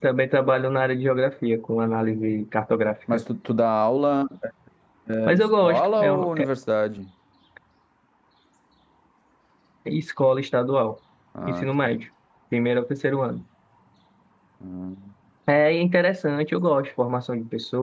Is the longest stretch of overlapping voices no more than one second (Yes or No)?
No